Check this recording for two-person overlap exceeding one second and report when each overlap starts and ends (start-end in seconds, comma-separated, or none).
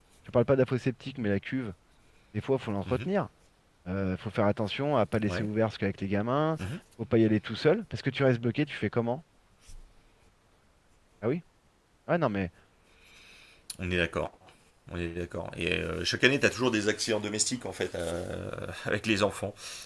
none